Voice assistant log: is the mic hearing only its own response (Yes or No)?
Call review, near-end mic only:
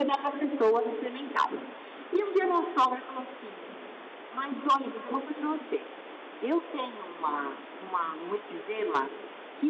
Yes